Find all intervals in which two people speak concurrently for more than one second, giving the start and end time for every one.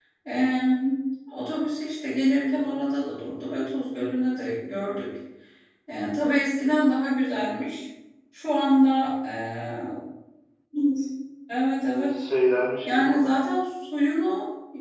none

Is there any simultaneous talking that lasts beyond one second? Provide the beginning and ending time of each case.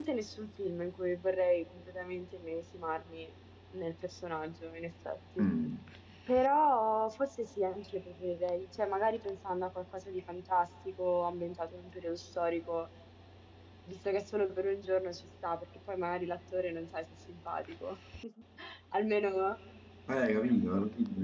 none

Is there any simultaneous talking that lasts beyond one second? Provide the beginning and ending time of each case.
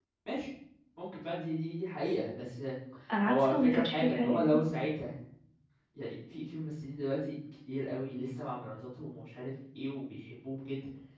3.2-4.6

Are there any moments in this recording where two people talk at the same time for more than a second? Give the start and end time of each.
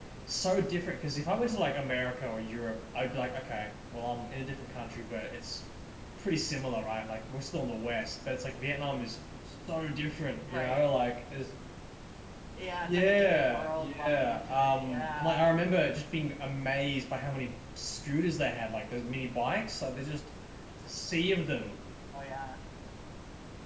12.8-15.4

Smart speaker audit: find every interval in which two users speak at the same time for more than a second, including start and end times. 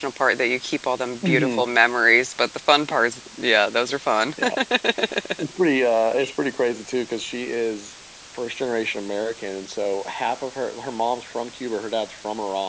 none

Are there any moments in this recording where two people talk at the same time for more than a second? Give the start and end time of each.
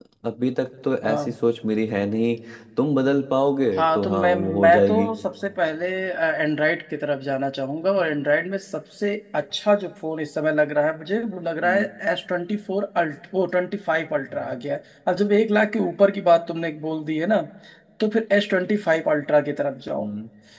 3.8-5.1

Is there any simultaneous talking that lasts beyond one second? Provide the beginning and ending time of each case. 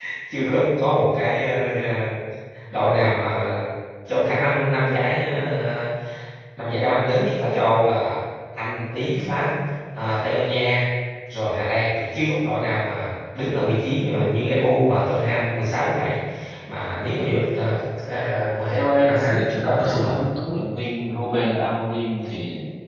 18.7-20.2

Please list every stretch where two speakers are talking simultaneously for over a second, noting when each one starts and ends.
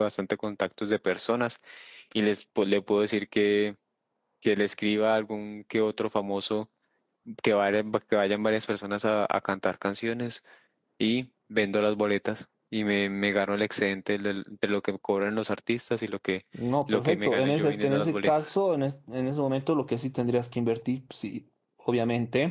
16.9-18.5

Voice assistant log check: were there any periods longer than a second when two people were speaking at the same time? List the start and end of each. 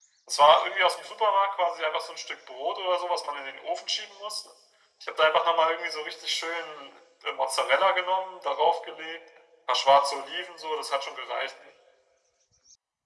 none

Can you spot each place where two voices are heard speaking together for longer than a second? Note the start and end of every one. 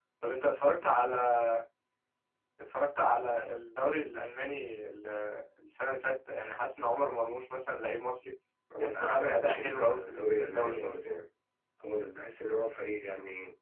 8.8-10.9

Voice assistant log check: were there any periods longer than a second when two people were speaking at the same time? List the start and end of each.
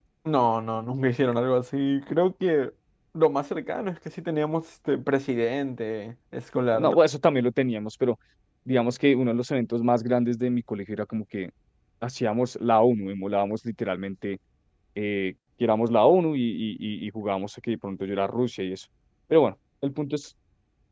none

